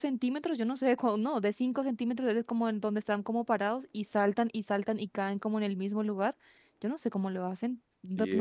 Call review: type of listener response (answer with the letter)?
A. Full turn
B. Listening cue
A